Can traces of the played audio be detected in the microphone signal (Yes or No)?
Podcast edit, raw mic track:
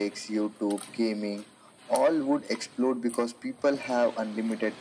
Yes